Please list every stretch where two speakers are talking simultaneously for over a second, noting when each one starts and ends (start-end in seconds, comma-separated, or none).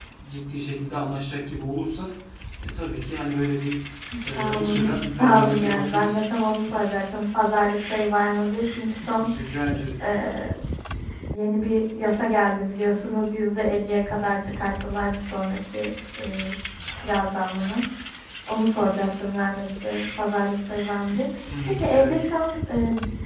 4.4-6.2